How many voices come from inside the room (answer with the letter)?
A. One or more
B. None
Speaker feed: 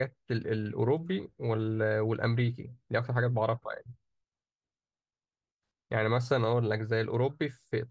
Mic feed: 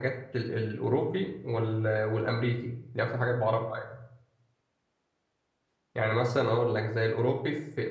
B